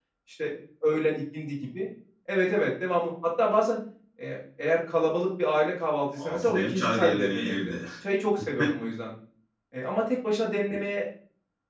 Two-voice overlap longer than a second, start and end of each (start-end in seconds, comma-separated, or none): 6.1-7.7